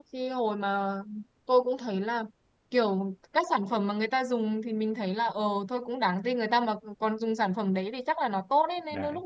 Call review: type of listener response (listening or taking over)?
listening